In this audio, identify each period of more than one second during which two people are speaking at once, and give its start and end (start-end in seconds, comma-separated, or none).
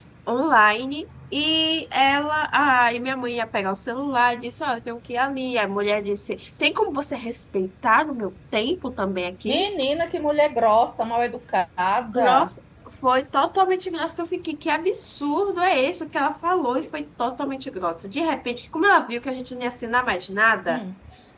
none